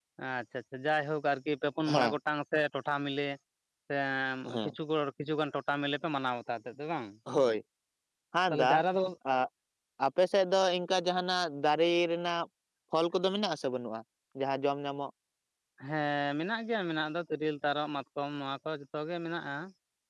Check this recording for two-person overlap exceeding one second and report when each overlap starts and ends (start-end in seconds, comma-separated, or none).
none